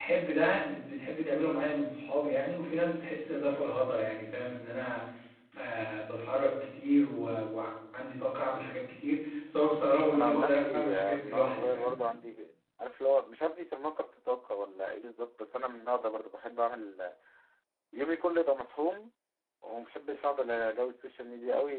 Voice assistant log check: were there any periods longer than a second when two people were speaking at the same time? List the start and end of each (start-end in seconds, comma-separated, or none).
10.1-12.0